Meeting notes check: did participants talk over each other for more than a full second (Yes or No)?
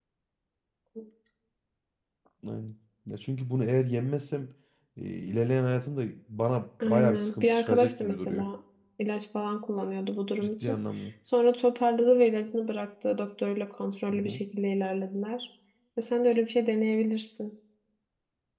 Yes